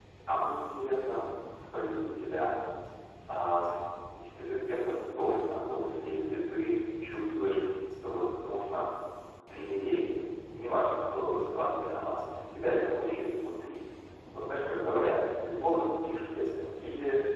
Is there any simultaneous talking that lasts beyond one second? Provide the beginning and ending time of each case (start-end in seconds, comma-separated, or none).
none